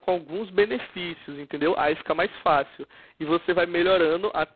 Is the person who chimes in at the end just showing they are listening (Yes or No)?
Yes